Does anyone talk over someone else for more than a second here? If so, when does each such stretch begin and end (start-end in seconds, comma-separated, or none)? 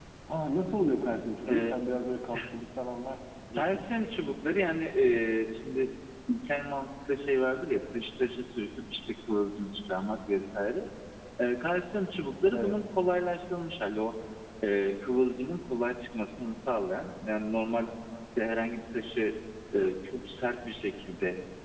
none